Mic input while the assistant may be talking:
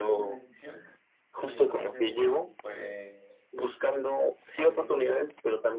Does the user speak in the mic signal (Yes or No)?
Yes